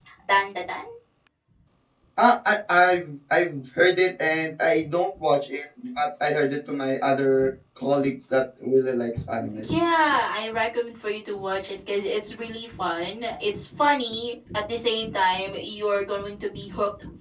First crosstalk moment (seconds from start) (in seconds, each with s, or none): none